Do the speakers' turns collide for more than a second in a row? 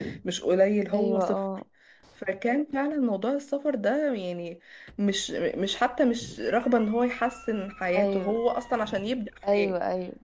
No

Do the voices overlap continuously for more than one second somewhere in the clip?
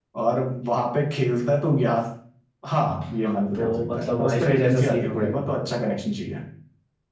Yes, from 3.5 s

